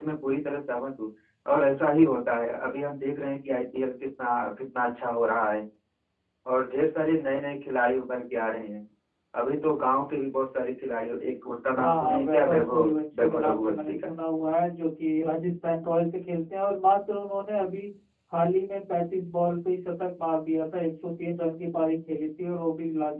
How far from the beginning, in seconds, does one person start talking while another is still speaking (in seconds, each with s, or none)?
11.7 s